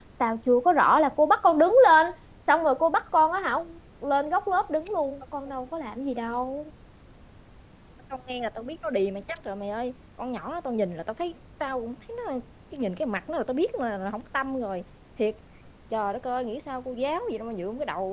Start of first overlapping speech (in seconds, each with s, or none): none